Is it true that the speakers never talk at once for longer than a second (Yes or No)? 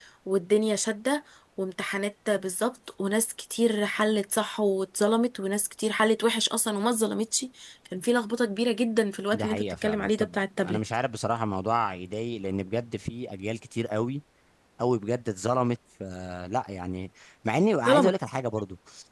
No